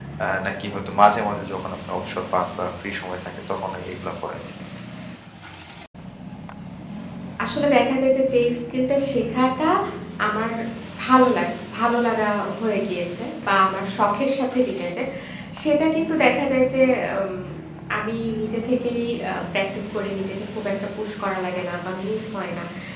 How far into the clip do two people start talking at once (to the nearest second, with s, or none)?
none